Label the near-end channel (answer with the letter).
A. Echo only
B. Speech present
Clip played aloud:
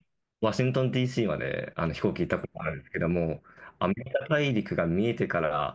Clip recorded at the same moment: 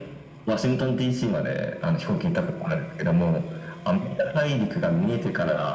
A